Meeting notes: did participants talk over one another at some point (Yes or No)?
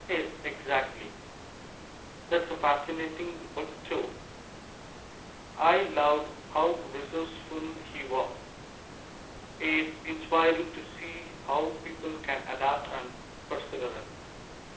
No